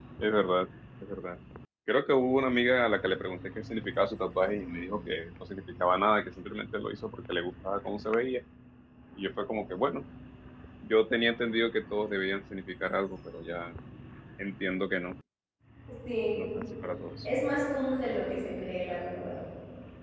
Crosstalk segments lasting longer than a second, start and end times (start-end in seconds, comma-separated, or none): none